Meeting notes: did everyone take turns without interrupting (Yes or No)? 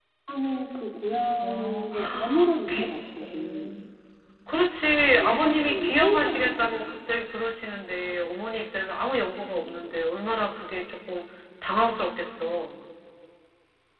No